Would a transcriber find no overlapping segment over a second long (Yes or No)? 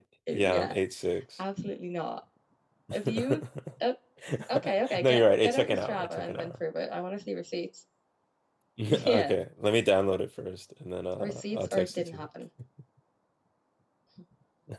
No